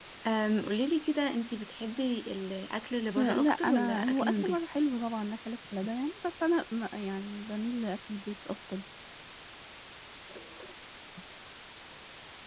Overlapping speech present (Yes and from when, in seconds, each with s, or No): Yes, from 3.2 s